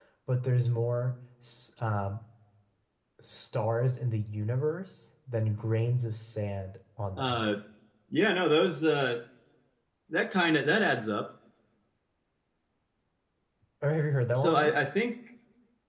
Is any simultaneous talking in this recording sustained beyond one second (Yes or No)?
No